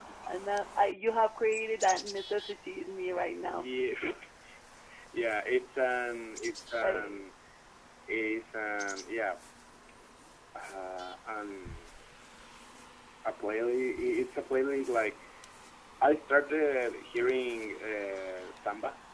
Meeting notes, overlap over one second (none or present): none